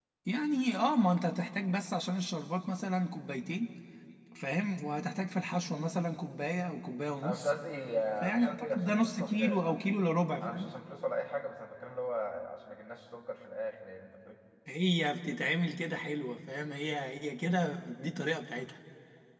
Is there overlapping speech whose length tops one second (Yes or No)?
Yes